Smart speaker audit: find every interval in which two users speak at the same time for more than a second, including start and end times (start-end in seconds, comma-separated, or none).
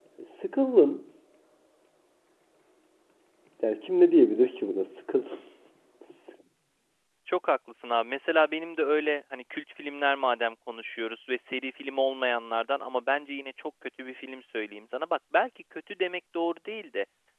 none